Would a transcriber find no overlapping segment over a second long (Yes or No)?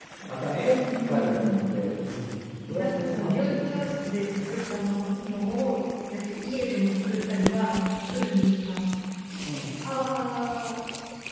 No